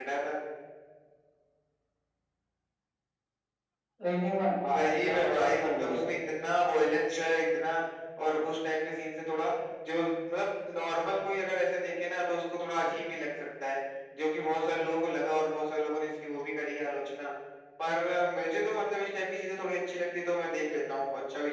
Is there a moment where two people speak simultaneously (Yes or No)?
Yes